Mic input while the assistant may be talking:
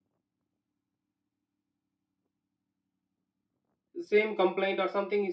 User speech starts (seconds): 4.0 s

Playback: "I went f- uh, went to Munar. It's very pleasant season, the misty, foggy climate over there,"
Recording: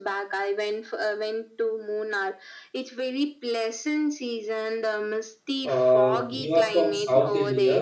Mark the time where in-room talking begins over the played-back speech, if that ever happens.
5.6 s

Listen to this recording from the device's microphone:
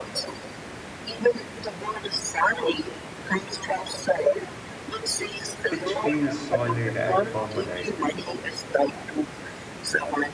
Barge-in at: 5.7 s

